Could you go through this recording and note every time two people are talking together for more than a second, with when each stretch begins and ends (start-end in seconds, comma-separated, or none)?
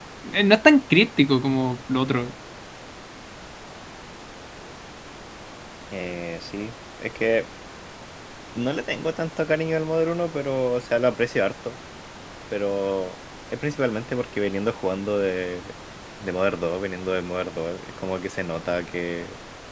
none